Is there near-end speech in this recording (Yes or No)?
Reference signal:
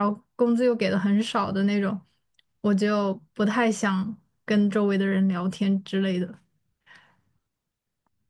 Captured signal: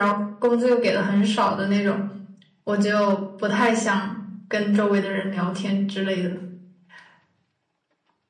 No